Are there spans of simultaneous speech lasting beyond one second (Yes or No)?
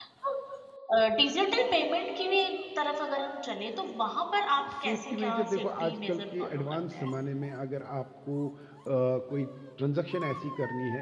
Yes